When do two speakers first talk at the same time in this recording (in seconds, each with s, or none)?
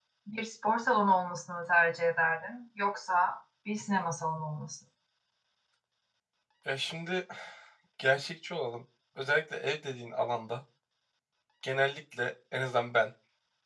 none